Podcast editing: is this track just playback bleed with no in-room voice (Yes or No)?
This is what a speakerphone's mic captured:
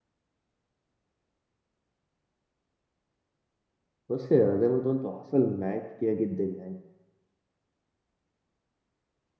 No